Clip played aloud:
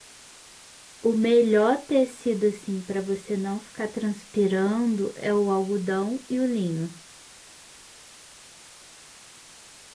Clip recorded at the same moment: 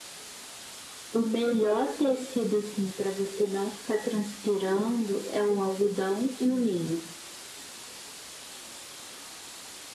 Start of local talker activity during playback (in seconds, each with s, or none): none